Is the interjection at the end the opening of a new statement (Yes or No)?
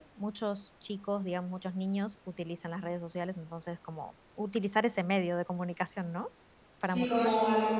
Yes